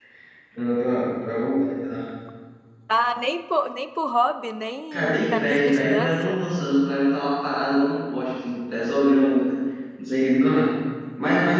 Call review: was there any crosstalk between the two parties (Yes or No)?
Yes